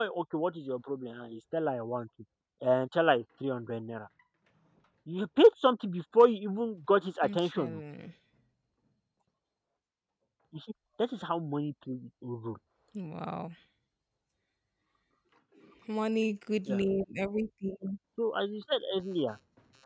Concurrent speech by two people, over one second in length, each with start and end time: none

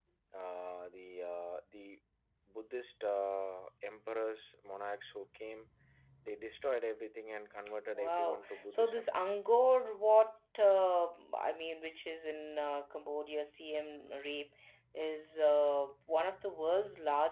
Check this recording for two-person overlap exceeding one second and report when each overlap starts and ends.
7.9-9.2

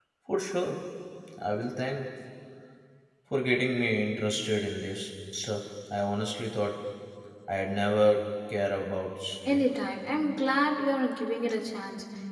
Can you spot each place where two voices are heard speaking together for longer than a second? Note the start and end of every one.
none

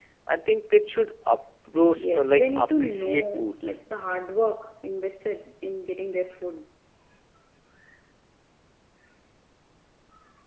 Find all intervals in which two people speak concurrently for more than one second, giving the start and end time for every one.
2.0-3.8

